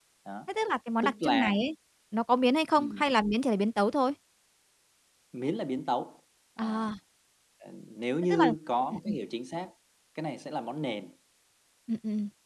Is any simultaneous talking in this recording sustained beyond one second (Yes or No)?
No